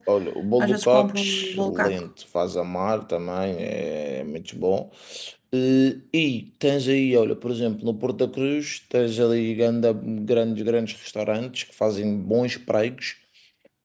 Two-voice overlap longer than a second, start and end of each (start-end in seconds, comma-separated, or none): 0.6-2.0